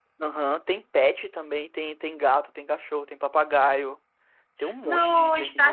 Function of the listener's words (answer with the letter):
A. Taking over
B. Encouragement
A